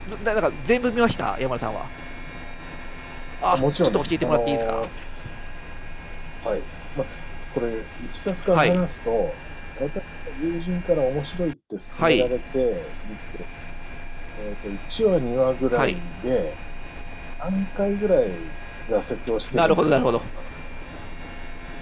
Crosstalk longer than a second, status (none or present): present